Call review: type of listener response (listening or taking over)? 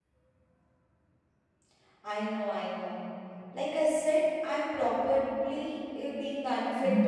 taking over